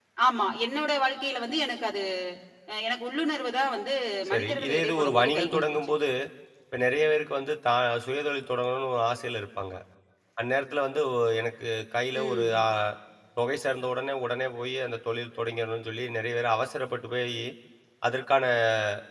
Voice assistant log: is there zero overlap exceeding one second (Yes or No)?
No